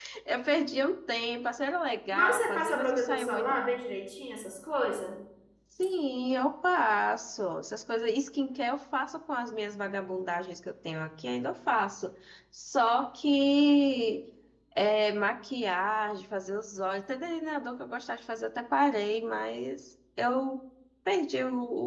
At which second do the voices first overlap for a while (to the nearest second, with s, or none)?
2 s